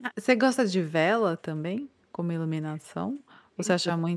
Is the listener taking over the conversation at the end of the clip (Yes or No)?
No